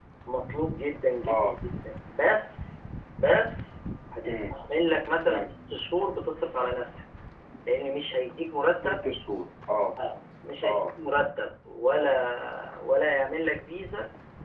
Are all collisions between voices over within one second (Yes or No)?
Yes